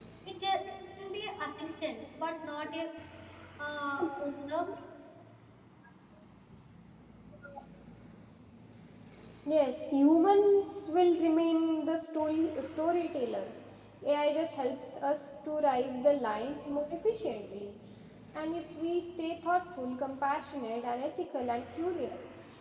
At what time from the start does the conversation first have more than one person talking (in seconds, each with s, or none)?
none